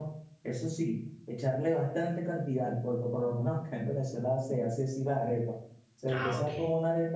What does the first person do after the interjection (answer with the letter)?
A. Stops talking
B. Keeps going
B